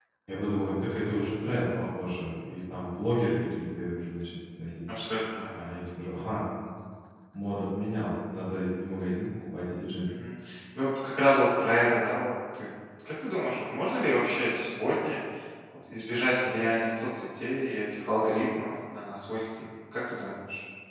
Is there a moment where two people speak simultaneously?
No

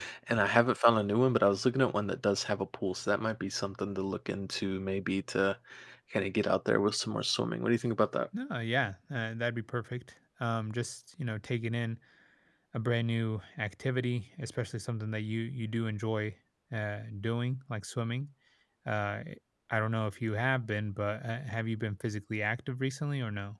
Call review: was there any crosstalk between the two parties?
No

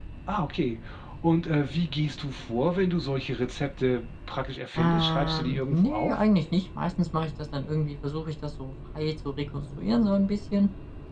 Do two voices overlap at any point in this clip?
Yes, from 4.8 s

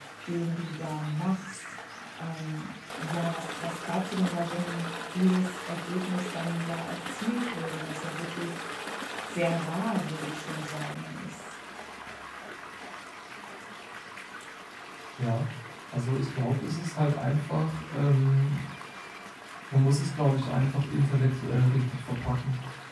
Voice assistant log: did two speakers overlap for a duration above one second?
No

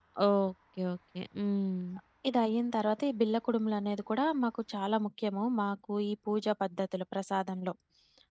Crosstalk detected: No

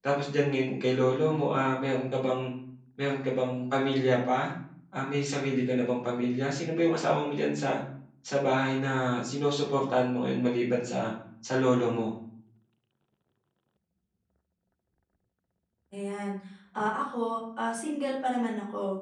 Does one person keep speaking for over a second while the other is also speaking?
No

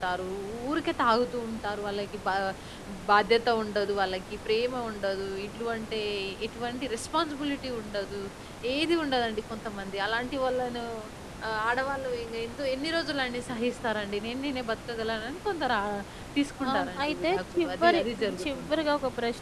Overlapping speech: Yes, from 16.7 s

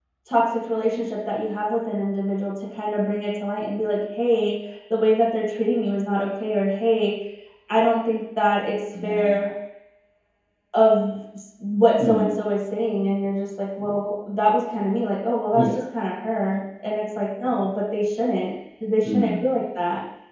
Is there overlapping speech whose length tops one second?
No

